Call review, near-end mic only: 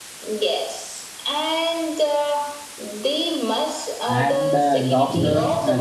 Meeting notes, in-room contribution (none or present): present